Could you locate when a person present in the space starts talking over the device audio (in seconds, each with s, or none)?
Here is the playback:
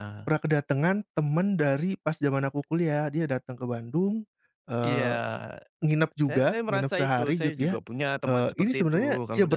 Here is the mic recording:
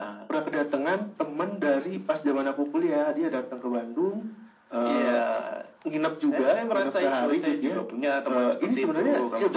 none